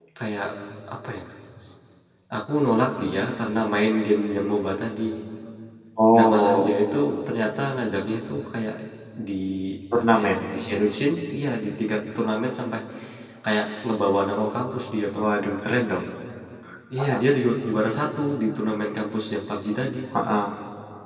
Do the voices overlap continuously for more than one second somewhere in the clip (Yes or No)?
No